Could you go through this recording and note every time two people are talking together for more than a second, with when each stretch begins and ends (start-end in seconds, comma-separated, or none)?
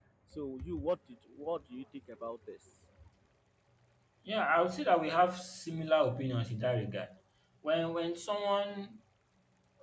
none